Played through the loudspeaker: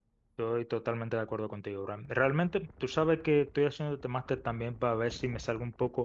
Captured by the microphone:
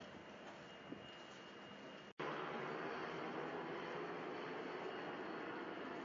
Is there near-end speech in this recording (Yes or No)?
No